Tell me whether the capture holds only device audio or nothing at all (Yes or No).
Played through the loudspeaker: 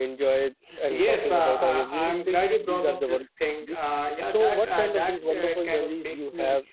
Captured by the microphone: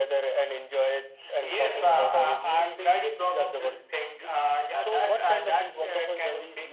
Yes